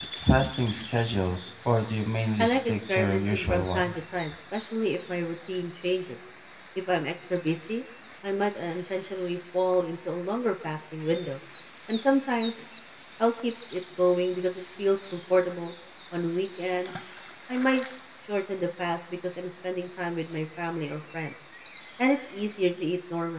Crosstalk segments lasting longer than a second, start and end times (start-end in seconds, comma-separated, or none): 2.4-3.9